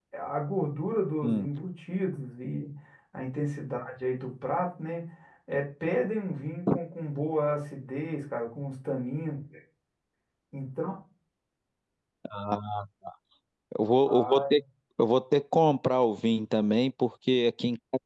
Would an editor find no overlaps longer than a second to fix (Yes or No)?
Yes